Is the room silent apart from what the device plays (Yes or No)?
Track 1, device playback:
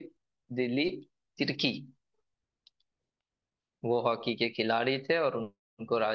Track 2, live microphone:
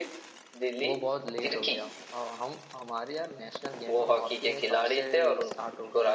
No